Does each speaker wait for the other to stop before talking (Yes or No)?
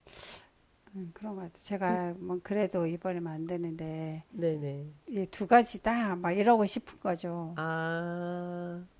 Yes